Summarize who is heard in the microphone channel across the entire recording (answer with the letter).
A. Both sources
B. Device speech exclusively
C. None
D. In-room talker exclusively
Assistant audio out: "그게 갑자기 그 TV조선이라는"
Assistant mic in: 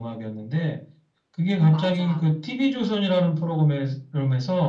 A